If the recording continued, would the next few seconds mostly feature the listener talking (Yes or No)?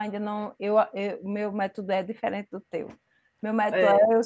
No